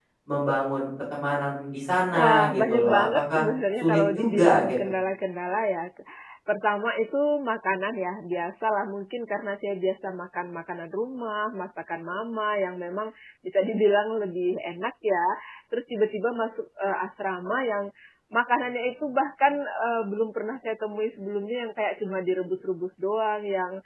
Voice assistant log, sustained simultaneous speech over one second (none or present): present